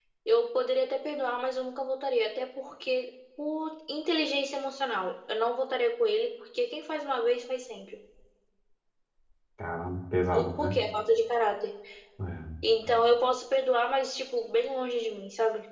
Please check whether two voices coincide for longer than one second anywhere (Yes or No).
No